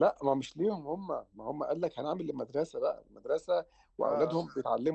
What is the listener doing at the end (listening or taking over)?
listening